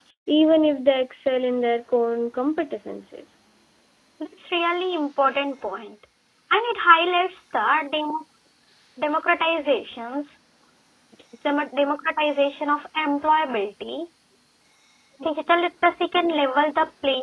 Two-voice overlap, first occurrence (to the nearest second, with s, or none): none